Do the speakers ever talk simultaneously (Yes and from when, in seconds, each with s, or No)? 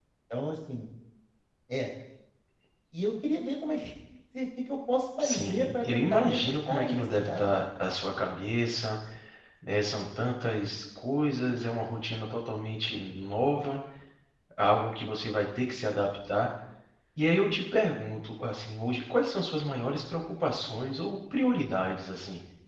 Yes, from 5.2 s